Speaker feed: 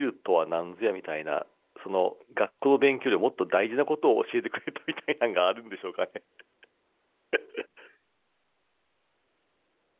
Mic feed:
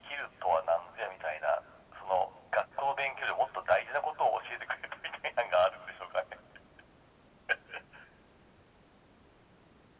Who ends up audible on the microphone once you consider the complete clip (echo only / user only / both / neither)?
echo only